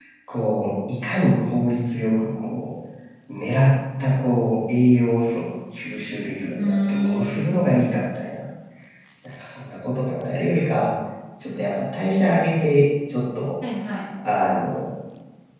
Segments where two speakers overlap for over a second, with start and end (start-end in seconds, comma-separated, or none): 6.6-7.8